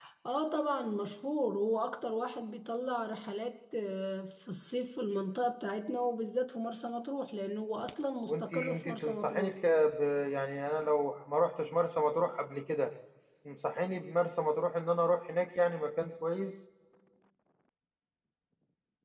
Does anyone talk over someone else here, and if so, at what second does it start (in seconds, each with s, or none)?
8.3 s